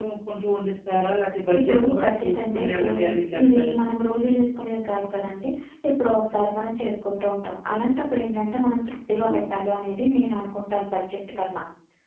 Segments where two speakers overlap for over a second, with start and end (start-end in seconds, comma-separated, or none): 1.7-2.9